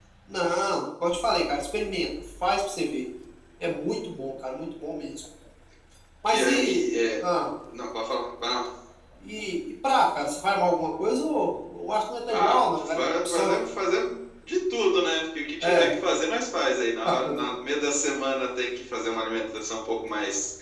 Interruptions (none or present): present